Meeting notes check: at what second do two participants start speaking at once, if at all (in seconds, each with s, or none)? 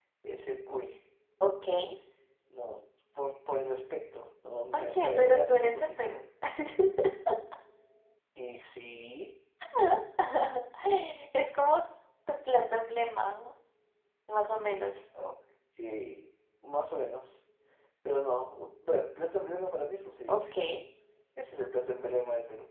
4.7 s